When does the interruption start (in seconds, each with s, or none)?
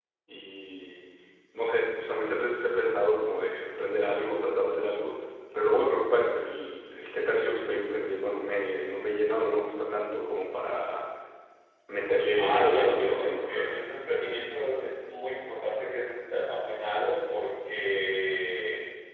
12.4 s